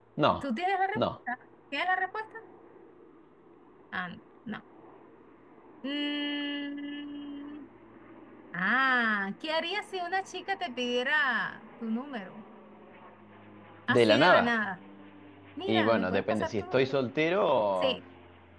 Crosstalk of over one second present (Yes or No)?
Yes